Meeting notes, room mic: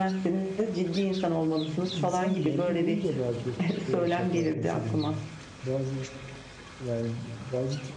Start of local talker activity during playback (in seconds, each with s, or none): 1.6 s